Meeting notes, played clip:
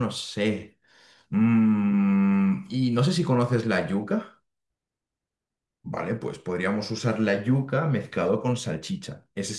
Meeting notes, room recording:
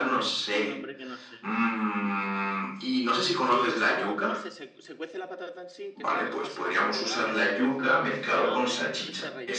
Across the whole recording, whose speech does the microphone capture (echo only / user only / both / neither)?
both